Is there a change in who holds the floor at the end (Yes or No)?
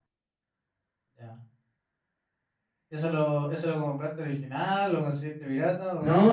Yes